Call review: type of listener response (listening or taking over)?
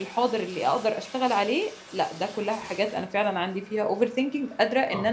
taking over